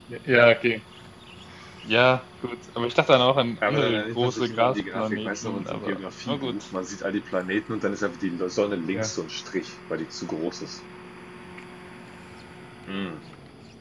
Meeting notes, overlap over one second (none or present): present